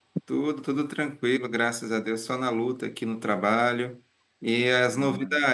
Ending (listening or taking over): listening